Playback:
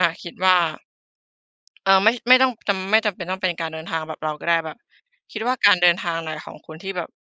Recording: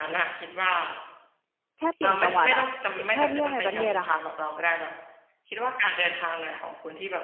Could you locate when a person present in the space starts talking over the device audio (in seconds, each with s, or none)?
1.8 s